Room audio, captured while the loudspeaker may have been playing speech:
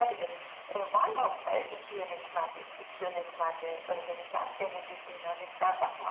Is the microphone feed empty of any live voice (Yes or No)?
Yes